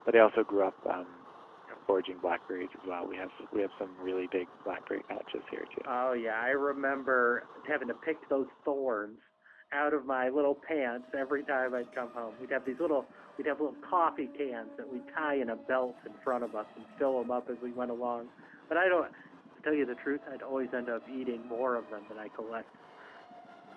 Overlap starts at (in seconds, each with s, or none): none